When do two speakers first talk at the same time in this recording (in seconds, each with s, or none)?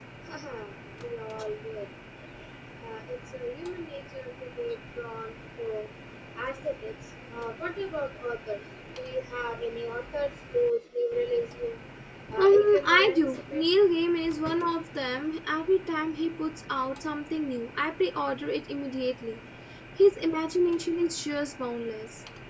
12.3 s